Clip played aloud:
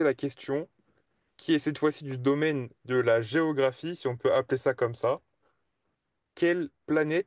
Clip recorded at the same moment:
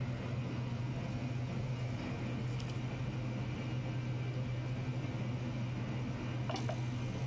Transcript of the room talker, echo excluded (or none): none